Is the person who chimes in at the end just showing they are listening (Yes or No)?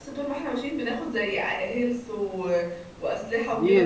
No